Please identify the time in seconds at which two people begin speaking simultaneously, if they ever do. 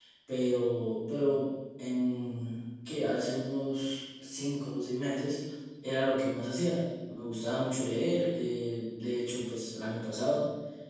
none

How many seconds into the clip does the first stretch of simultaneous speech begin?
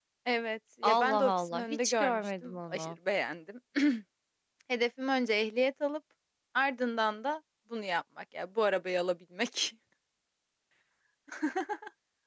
0.8 s

